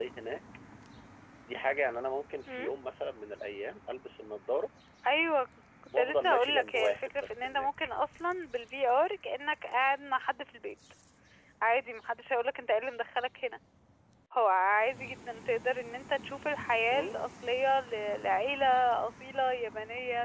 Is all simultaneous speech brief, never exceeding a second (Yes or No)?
No